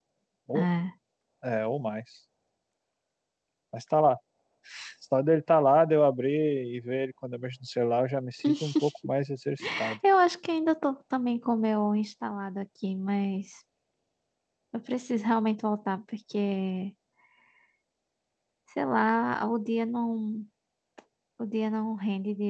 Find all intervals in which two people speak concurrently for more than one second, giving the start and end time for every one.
none

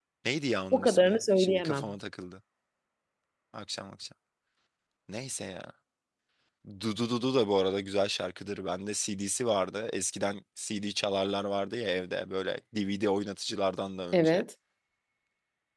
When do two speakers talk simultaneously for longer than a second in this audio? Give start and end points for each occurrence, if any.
0.7-1.9

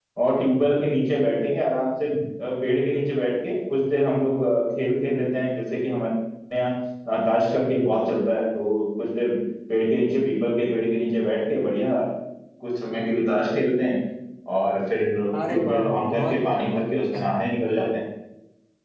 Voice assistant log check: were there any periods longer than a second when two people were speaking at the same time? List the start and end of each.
15.5-17.3

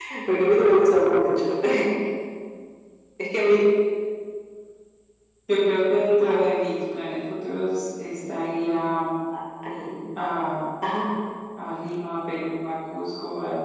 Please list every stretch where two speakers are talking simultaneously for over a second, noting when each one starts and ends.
none

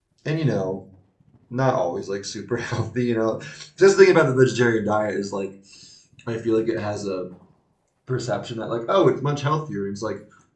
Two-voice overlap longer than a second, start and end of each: none

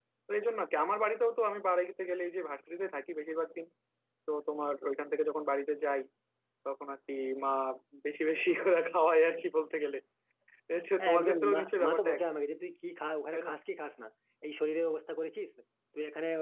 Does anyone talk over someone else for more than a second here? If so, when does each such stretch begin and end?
11.0-12.2

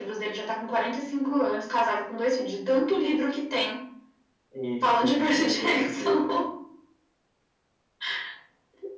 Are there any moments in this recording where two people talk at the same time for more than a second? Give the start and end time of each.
4.8-6.2

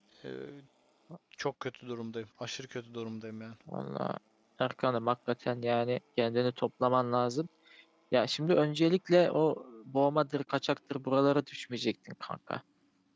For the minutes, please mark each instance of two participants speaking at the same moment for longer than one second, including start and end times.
none

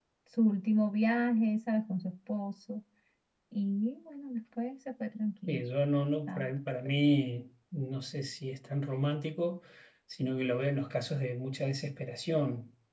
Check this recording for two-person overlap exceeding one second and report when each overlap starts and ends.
none

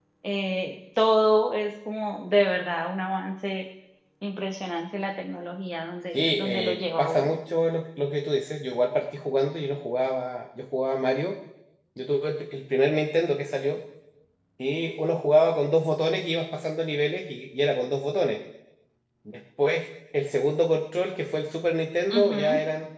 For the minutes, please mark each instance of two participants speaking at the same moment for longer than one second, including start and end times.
6.1-7.4

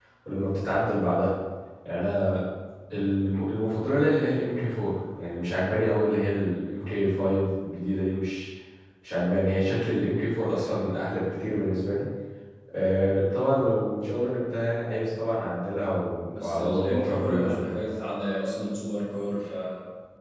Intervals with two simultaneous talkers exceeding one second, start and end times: 16.3-17.7

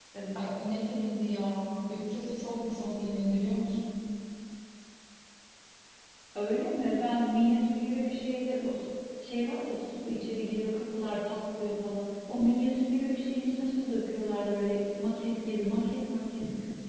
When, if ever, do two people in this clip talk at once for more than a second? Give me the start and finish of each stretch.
none

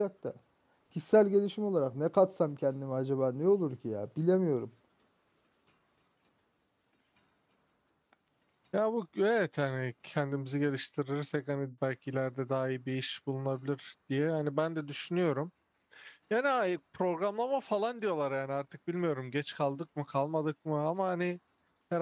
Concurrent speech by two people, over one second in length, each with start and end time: none

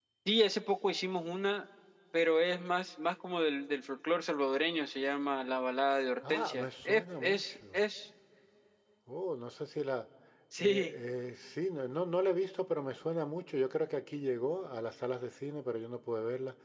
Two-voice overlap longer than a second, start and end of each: 6.3-7.8

